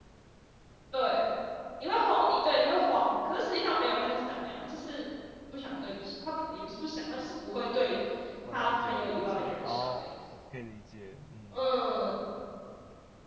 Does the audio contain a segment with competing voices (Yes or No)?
Yes